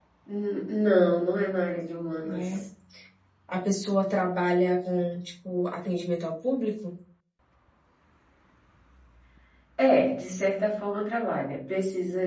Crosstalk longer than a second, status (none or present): none